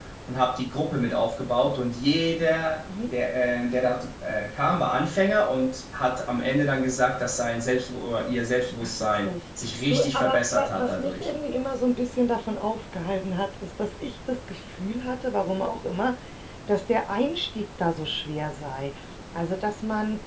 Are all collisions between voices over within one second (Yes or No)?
No